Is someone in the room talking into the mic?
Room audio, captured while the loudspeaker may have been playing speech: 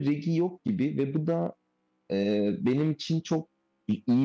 Yes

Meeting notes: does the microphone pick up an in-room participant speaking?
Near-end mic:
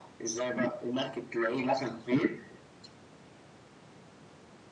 No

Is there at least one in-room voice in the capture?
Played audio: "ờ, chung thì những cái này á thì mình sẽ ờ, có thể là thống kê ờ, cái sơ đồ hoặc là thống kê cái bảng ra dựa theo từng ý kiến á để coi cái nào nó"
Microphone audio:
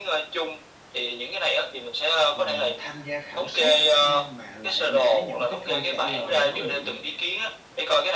Yes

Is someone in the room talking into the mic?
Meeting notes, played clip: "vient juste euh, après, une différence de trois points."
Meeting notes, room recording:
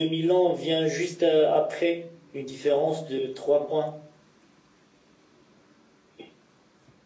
No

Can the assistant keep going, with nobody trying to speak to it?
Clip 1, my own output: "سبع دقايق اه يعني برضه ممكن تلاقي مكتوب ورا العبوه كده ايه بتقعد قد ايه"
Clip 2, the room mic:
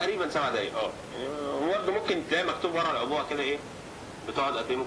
Yes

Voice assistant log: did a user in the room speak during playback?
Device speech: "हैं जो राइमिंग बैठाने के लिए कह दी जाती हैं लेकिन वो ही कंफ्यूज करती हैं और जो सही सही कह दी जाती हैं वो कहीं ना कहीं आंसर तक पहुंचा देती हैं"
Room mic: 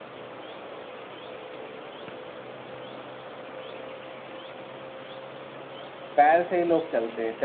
Yes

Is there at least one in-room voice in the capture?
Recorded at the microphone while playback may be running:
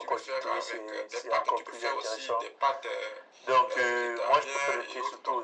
No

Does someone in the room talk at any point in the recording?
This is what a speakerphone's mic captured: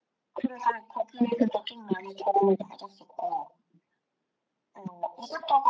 No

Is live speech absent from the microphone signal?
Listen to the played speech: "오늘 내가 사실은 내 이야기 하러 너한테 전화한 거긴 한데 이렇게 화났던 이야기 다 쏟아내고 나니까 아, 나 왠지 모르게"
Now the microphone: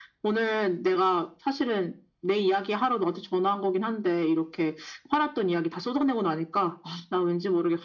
Yes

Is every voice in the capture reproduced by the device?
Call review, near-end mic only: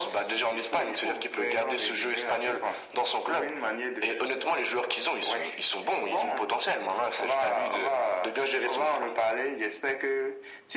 Yes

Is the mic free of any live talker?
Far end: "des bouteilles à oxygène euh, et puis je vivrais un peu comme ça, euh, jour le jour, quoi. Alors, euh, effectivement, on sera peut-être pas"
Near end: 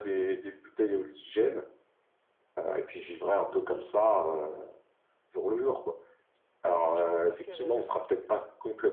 No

